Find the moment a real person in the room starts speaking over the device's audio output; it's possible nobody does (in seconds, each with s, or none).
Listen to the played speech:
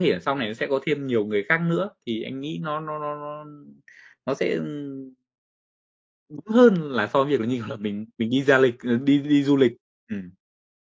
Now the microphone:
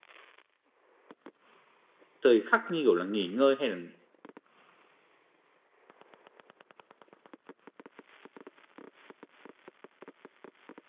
2.2 s